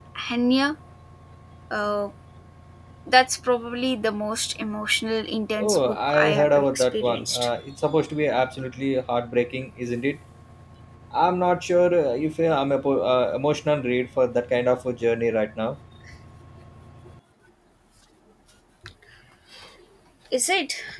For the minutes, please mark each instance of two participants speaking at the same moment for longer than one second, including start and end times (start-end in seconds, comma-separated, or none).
5.6-7.5